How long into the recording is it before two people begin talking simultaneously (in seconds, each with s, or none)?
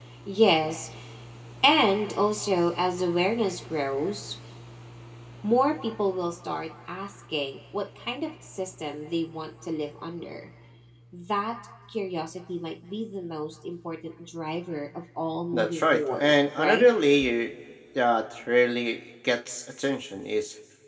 15.5 s